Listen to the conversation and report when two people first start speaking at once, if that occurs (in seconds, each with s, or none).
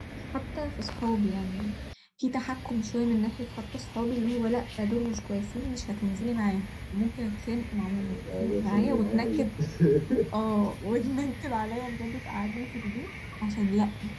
8.0 s